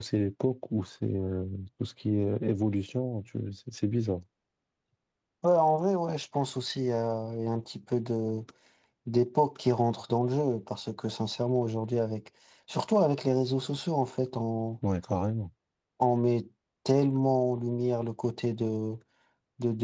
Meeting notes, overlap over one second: none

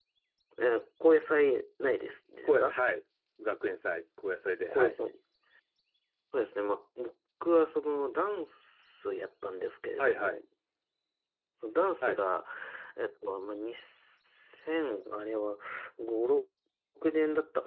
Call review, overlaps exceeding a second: none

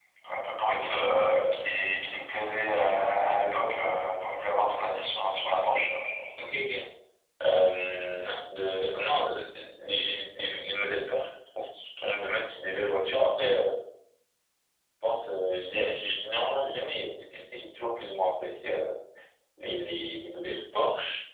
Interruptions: none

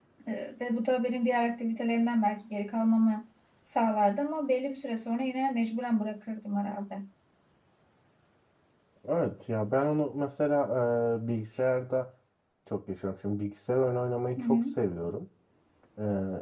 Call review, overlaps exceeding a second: none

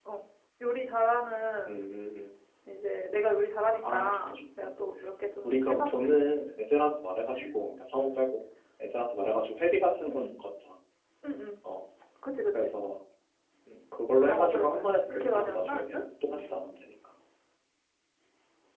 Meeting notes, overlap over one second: present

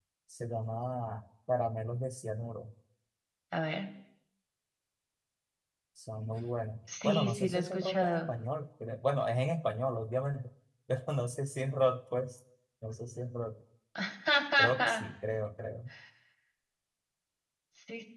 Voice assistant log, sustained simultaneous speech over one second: present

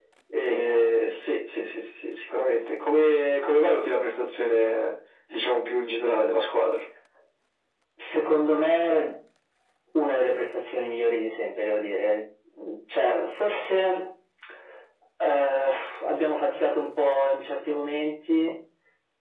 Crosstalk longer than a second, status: none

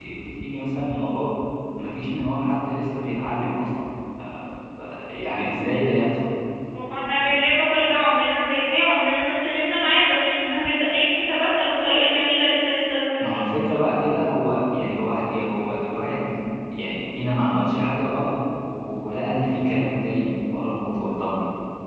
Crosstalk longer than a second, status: none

